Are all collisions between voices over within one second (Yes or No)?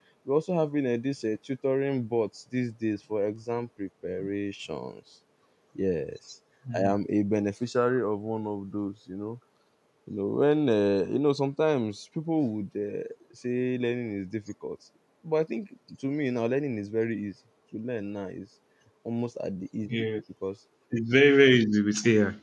Yes